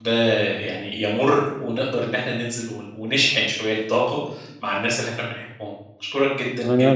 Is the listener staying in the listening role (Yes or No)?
No